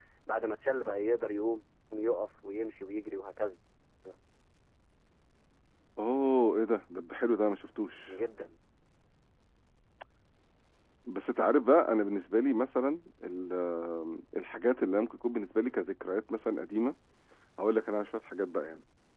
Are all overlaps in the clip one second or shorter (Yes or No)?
Yes